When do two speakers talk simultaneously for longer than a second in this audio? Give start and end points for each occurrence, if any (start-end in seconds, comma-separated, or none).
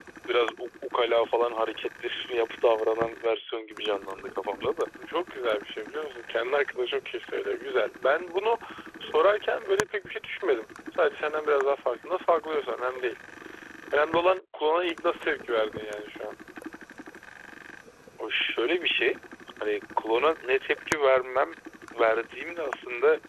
none